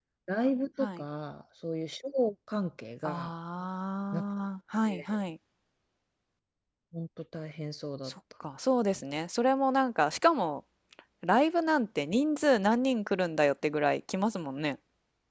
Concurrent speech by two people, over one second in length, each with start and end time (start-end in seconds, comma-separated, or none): none